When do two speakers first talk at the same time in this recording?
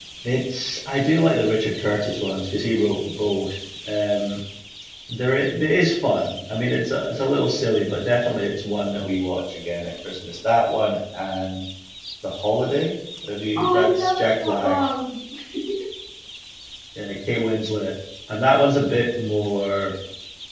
13.6 s

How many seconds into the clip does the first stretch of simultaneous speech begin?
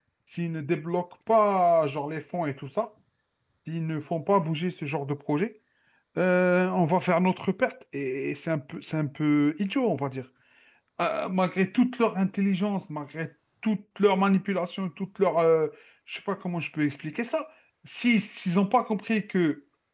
none

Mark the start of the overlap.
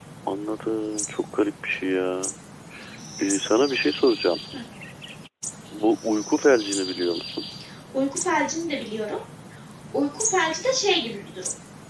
none

